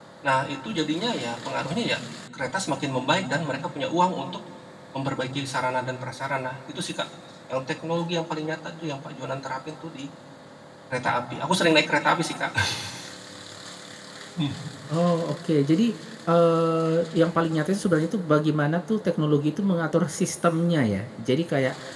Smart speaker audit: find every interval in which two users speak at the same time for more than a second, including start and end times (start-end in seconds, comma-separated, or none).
none